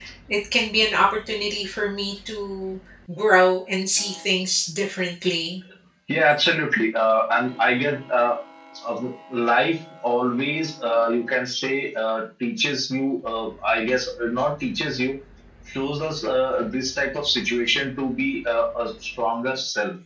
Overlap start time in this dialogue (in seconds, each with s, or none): none